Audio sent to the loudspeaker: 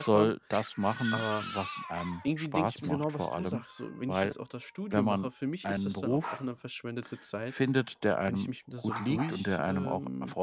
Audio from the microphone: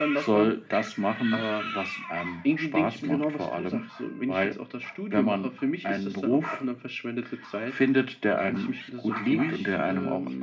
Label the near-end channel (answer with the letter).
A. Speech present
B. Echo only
B